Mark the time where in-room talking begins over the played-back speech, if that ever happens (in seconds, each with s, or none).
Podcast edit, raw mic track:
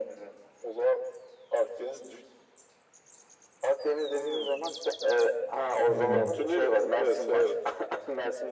5.8 s